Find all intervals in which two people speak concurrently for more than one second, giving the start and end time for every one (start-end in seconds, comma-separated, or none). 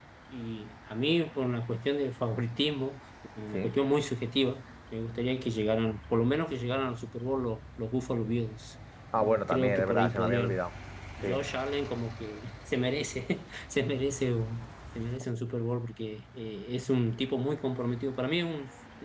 9.2-10.6